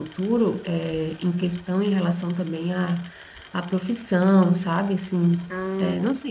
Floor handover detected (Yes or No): No